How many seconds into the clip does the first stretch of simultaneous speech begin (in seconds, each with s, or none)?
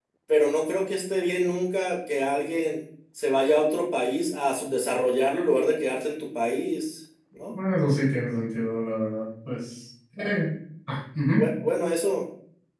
none